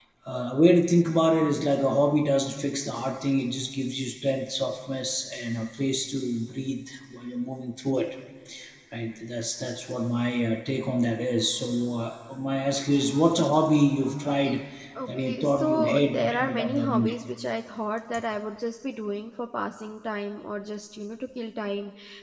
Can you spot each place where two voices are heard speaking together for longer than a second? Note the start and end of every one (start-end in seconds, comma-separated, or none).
15.1-17.1